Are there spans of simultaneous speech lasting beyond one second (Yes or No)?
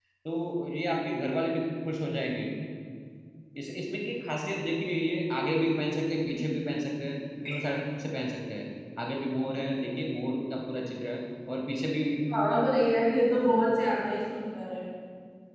No